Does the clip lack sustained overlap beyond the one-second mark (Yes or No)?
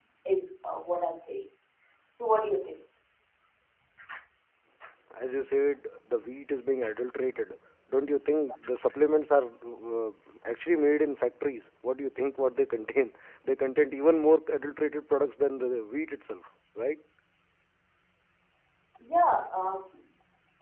Yes